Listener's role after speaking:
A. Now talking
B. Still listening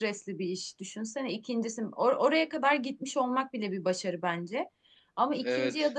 B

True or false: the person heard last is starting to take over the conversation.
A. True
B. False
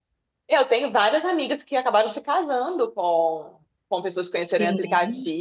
B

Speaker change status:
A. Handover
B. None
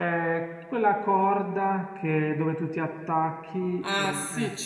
A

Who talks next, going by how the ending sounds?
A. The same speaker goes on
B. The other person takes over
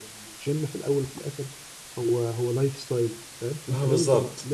A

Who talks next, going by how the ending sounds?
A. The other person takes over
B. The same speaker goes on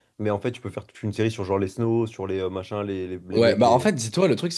A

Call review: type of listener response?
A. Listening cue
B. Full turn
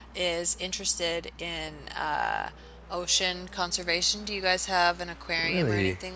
B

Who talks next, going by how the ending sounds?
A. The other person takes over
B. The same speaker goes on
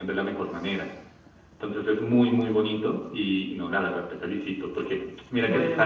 B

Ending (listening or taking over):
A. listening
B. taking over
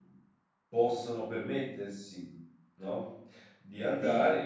A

